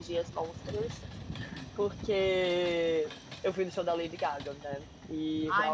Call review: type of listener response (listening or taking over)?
taking over